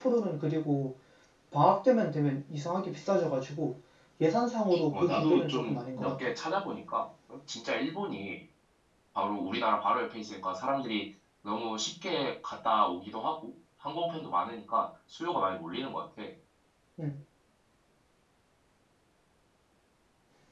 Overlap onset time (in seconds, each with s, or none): 4.9 s